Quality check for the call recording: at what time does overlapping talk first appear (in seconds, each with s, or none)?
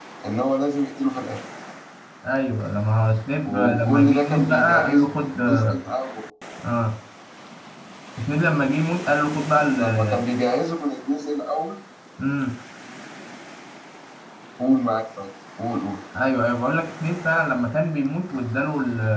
3.5 s